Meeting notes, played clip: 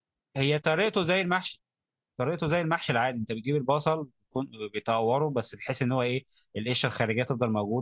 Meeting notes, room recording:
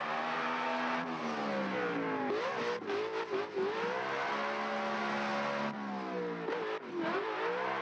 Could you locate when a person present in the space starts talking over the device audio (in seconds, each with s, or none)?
none